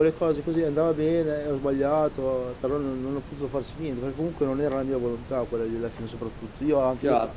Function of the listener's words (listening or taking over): taking over